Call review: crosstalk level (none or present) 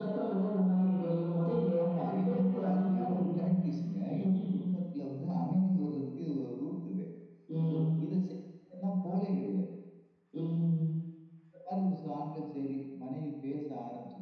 present